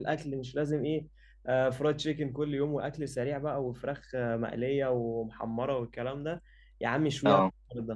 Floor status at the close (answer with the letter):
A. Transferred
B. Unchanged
B